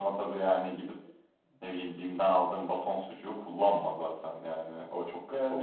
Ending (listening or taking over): taking over